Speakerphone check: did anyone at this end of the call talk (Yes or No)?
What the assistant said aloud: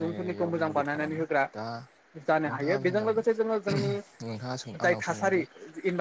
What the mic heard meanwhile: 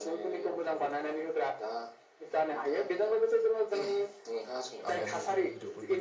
Yes